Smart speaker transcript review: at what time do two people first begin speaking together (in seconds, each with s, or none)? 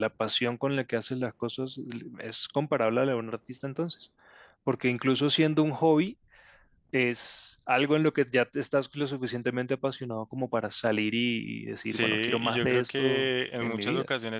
11.8 s